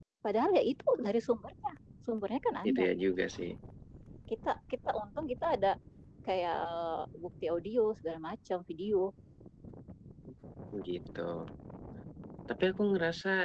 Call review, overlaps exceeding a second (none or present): none